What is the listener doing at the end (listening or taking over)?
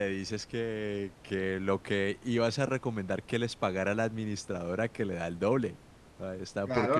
taking over